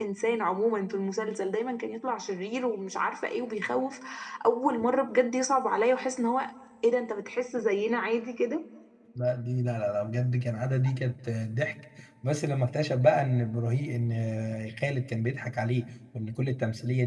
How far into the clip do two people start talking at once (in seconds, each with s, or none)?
none